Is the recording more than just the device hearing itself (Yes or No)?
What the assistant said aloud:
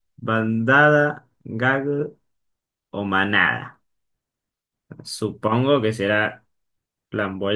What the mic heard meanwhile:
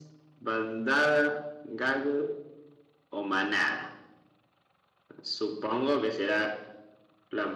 No